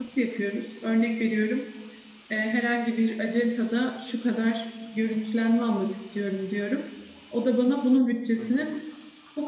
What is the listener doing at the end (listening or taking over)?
listening